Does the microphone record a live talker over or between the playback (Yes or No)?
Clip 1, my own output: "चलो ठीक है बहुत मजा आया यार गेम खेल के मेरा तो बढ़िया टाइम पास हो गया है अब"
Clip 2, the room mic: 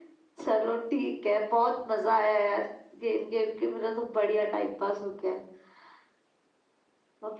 No